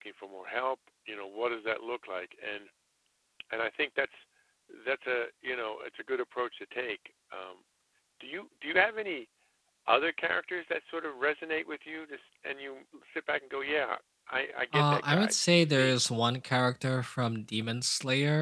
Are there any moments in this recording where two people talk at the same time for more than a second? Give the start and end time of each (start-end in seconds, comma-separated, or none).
14.7-16.0